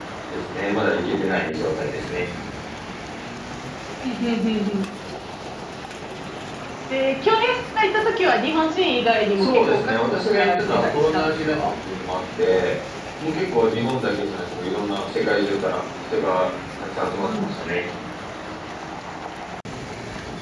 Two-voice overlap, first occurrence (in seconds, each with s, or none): 9.4 s